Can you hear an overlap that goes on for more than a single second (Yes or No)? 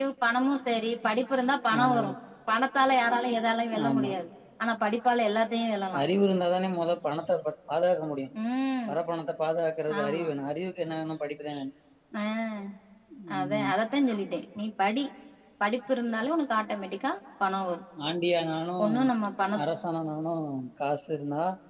No